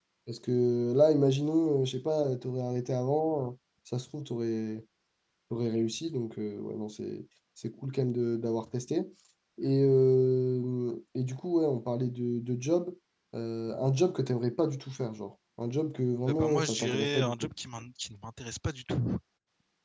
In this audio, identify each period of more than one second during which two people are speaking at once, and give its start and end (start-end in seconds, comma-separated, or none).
16.3-17.5